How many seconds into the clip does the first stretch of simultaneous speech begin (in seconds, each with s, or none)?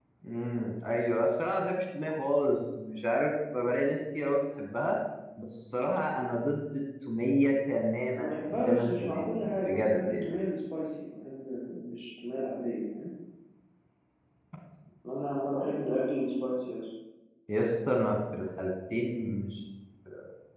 8.1 s